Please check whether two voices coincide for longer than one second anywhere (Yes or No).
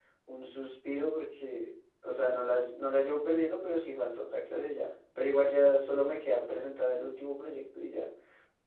No